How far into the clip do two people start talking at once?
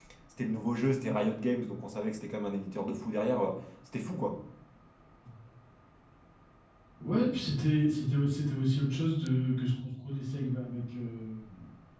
none

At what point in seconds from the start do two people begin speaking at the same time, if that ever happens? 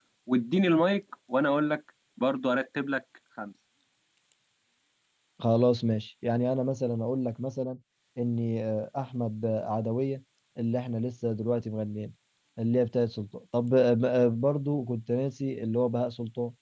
none

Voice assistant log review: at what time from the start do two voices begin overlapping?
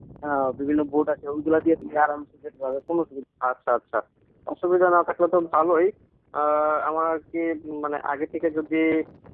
none

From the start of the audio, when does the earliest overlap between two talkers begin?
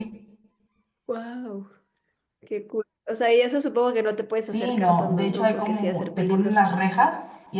4.5 s

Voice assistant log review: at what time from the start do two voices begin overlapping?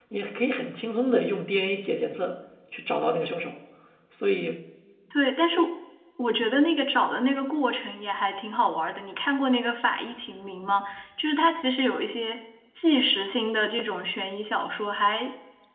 none

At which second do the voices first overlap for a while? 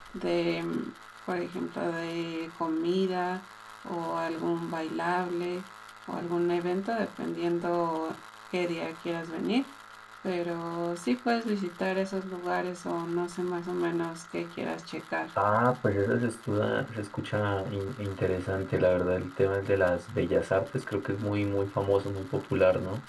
none

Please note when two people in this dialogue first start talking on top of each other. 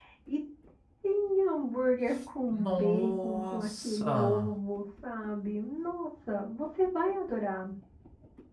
2.5 s

